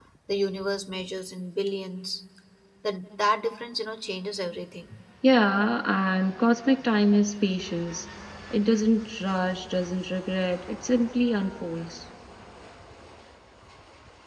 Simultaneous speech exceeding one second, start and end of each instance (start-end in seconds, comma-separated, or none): none